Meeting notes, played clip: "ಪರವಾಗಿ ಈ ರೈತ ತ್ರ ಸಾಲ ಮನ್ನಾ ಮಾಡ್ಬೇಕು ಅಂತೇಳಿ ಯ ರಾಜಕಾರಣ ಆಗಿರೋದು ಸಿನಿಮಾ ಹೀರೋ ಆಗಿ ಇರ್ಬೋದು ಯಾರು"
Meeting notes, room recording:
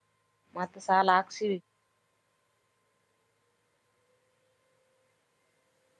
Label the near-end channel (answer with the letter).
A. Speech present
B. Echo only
A